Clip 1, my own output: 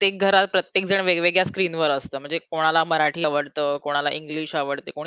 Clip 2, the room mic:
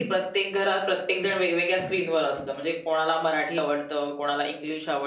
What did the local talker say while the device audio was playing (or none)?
none